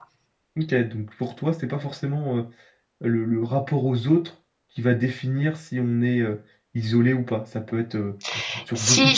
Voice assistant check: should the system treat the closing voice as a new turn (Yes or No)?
Yes